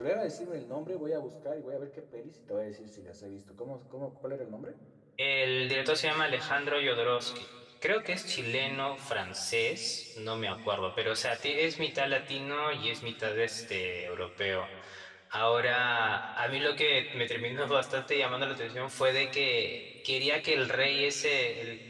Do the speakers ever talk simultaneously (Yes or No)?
No